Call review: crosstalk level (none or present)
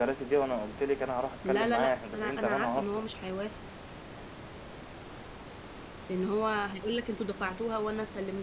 present